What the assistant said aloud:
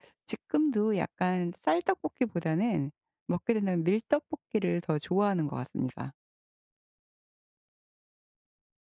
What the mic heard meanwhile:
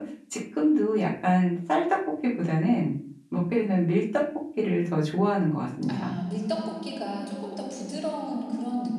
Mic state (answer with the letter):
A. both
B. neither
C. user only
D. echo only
A